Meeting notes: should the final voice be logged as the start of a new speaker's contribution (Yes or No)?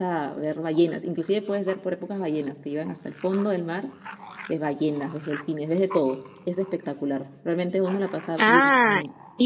Yes